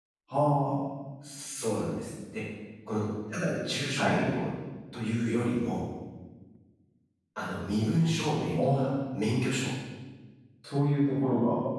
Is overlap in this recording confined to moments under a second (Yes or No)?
Yes